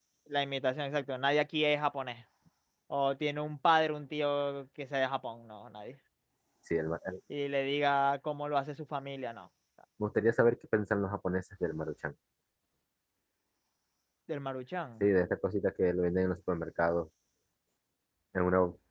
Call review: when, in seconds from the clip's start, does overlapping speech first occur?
none

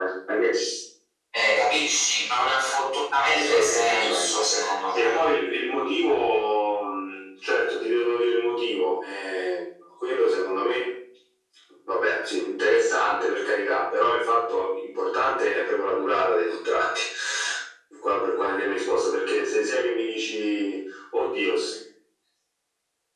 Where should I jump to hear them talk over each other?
3.2 s

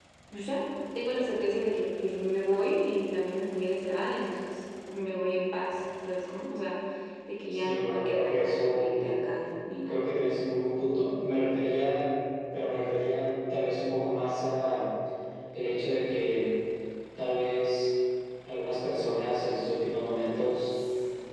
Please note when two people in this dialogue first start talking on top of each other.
7.5 s

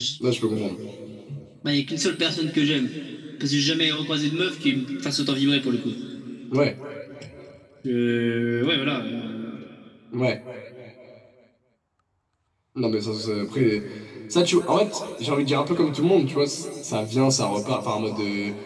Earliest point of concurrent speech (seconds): none

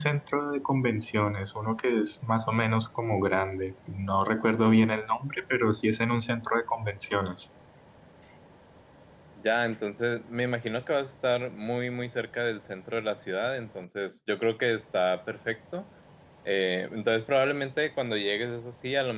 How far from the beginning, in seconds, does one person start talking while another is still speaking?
none

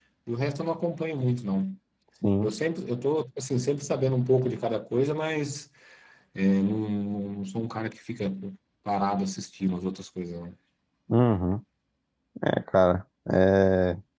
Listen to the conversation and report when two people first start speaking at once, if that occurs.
none

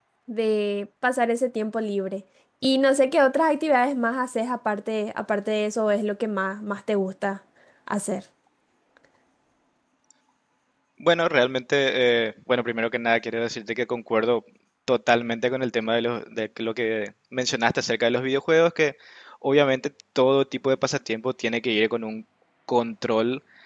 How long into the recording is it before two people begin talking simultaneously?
none

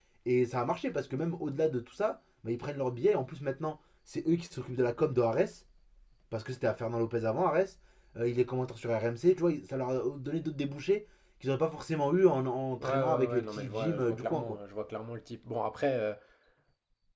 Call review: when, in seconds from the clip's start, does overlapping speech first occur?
12.8 s

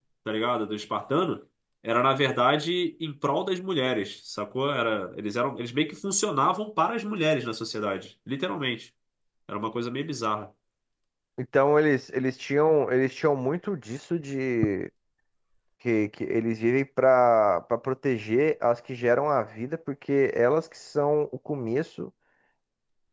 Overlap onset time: none

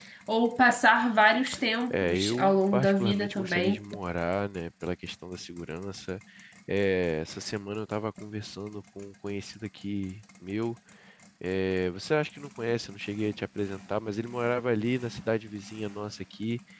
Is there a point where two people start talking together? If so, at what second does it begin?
1.9 s

